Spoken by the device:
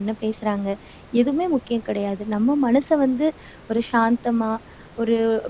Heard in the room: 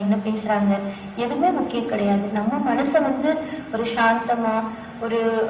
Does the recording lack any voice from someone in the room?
Yes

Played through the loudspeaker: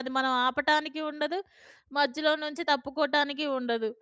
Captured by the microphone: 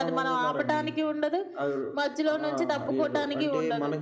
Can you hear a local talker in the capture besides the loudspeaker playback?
Yes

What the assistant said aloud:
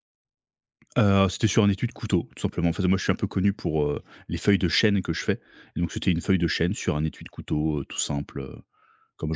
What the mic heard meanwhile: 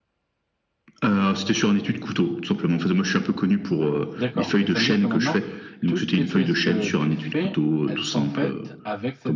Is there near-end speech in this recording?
Yes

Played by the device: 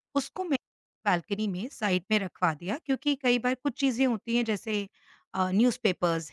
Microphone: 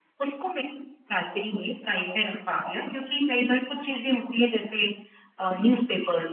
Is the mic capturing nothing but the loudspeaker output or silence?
Yes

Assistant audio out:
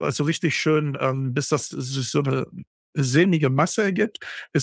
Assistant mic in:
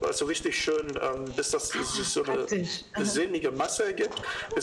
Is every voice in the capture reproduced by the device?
No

